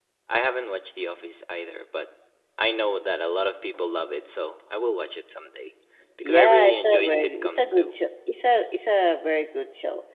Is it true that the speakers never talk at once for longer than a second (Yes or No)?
No